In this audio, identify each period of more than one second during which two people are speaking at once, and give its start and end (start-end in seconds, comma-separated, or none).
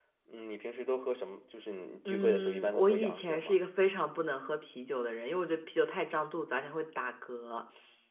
2.0-3.6